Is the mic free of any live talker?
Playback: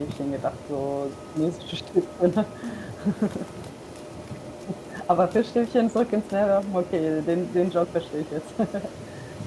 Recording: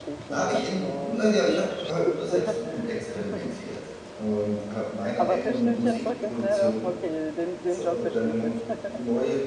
No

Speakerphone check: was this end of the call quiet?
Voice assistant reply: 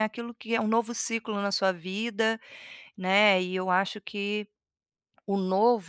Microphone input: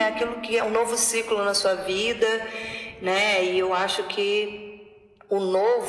Yes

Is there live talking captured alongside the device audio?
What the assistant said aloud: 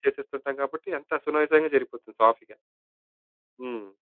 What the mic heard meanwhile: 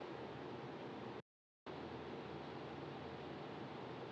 No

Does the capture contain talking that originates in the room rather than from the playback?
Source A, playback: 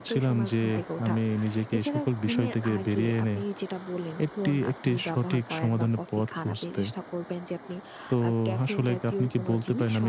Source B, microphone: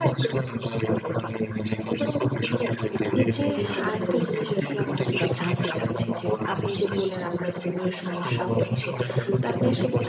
Yes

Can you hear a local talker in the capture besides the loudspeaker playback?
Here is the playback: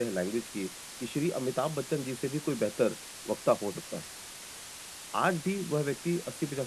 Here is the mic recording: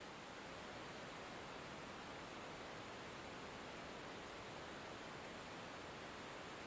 No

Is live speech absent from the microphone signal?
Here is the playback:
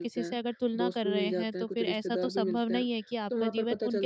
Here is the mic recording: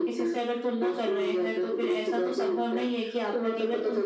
Yes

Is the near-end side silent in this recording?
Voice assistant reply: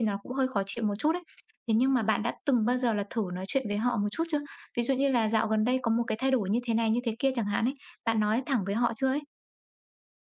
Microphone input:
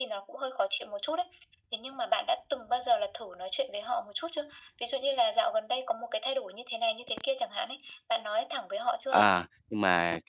No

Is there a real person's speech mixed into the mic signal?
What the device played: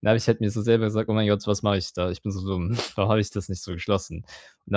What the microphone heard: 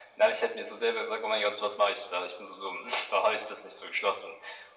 No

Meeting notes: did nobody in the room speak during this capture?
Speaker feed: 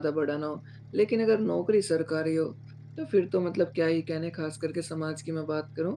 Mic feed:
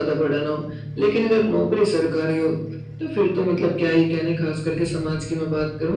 Yes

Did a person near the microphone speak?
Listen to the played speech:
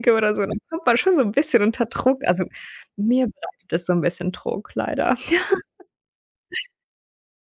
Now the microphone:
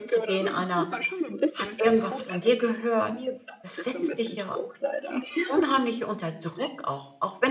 Yes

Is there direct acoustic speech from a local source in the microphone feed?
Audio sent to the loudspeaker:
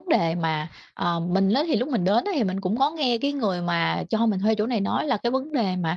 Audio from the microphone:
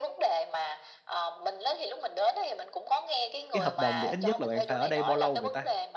Yes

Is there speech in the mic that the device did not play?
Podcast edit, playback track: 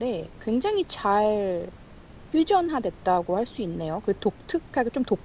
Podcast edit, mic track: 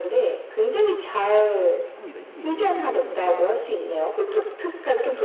Yes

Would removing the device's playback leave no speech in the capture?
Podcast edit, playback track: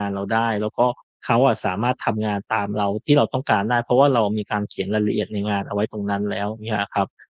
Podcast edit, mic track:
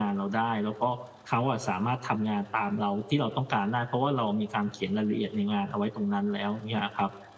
Yes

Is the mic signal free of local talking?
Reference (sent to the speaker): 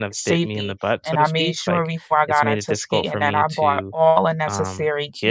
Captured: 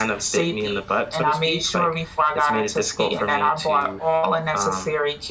Yes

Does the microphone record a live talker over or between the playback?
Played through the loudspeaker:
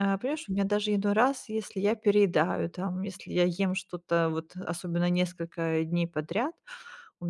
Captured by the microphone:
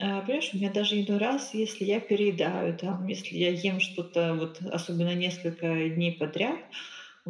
No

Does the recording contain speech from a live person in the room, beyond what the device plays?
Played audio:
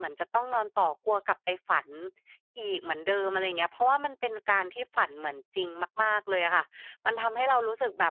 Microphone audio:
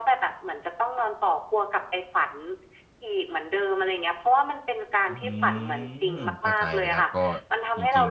Yes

